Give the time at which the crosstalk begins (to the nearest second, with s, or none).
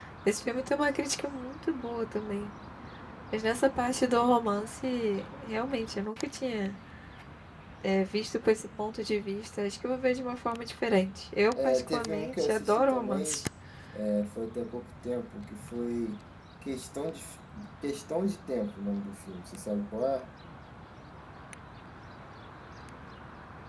12 s